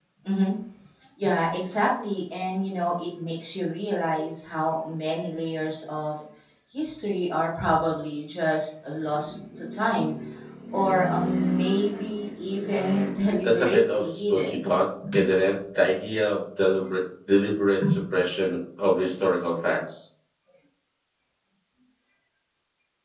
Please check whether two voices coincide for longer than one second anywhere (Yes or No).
Yes